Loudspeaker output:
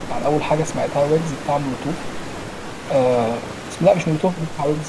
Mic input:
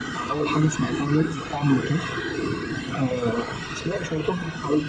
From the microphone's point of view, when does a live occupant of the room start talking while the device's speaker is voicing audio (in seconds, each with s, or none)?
none